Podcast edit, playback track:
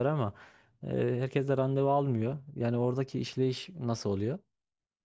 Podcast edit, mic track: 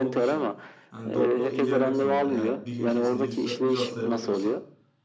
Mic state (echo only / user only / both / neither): both